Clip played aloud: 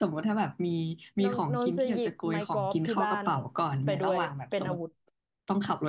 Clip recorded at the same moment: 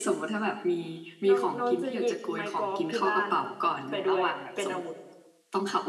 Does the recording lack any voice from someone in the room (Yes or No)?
Yes